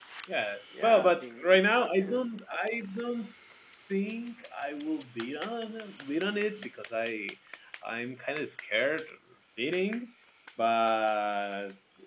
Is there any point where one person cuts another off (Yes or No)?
Yes